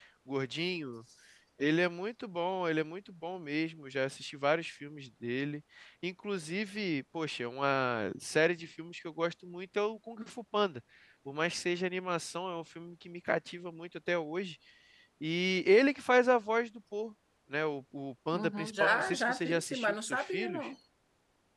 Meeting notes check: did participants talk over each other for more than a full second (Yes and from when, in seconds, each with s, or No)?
Yes, from 18.3 s